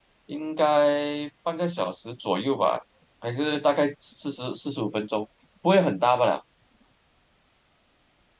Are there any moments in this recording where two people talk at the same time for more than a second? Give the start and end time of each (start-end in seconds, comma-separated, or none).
none